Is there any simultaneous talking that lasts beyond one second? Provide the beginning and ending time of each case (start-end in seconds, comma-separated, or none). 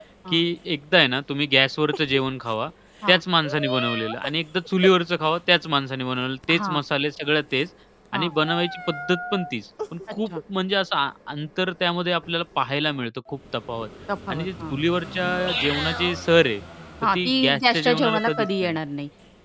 17.2-18.8